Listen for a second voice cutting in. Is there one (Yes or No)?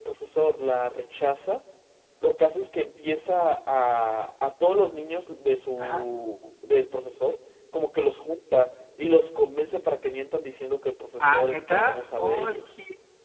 Yes